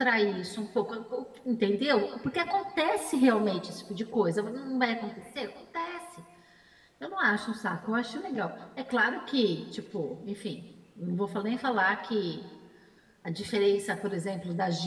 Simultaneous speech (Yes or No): No